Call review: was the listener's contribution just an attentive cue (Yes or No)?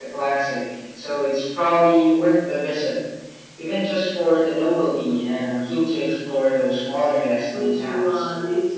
No